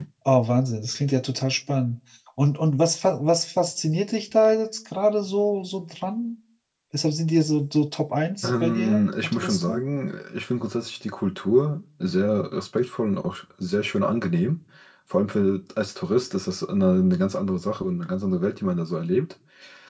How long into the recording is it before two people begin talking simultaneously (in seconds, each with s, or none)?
8.4 s